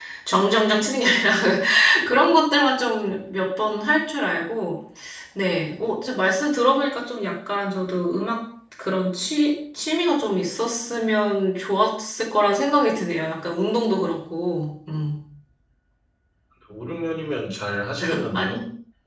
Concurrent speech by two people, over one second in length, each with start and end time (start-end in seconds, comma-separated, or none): none